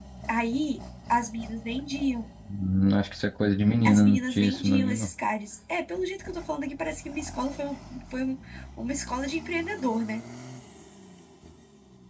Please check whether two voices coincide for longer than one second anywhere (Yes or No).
Yes